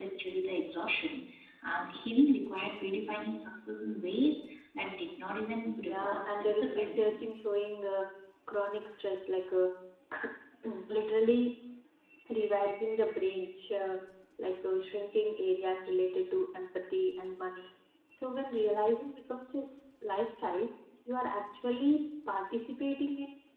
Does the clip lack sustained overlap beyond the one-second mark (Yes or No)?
No